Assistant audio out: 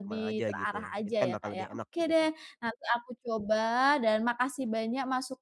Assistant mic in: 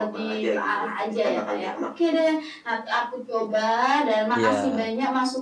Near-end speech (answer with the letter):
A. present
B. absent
A